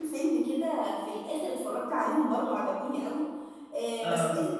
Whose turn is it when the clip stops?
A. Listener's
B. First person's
B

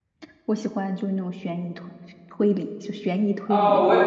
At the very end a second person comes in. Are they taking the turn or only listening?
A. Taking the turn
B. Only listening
A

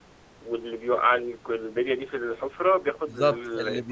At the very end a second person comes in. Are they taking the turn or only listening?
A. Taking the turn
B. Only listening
A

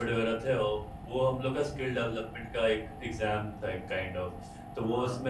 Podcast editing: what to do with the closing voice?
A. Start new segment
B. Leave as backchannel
B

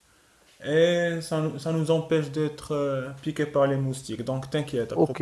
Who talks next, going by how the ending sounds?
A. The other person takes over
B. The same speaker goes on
A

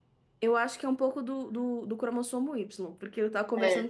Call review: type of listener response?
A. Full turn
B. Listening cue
B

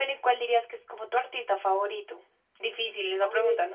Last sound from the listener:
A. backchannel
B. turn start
B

